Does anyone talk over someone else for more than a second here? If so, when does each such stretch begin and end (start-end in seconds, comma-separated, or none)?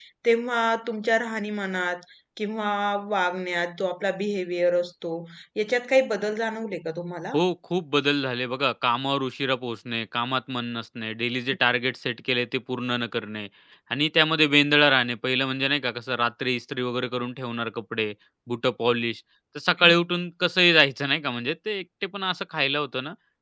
none